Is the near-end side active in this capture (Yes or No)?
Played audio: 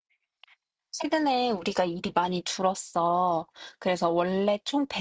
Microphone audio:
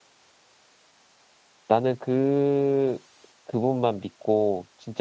Yes